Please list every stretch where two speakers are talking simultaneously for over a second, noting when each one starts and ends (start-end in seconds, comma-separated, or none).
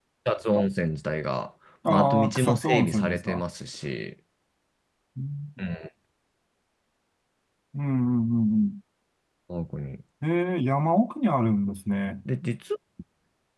1.9-3.4